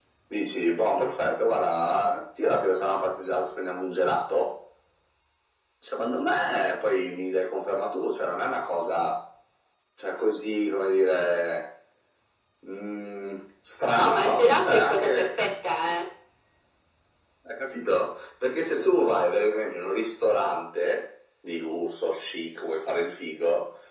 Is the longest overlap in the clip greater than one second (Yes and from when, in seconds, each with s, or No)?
Yes, from 14.0 s